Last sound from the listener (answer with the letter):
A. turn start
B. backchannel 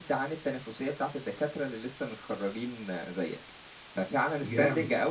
B